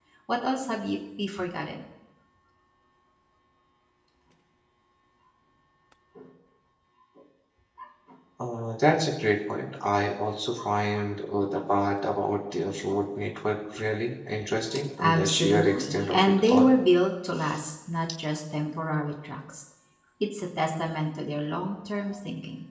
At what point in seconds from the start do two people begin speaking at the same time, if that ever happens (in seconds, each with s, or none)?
15.0 s